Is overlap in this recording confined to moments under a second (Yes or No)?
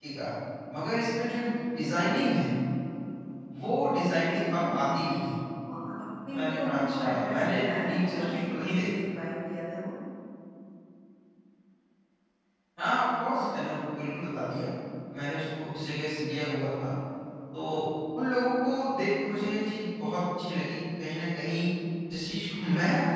No